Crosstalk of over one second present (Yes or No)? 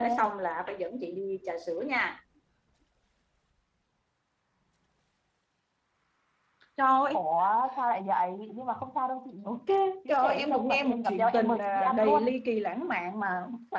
Yes